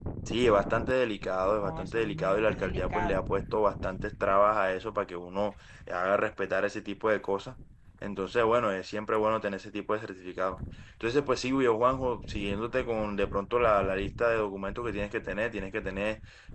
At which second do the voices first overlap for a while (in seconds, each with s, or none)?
1.6 s